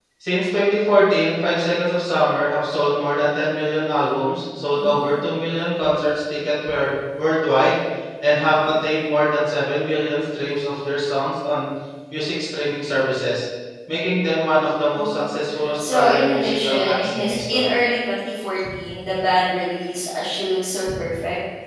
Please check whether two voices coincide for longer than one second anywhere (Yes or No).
Yes